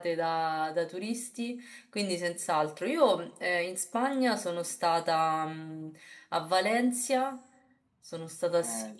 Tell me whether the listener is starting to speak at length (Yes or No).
Yes